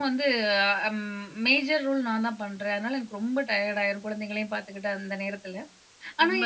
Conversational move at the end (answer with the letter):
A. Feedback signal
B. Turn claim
A